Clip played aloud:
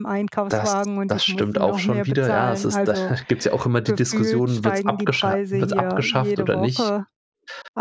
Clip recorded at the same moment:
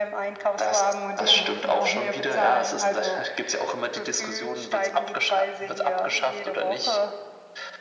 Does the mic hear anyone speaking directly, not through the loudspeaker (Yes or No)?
Yes